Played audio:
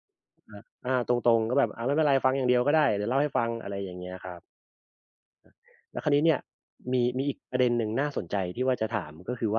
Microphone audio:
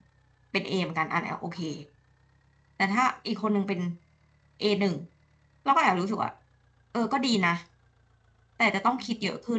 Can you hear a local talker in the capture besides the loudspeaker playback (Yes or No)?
Yes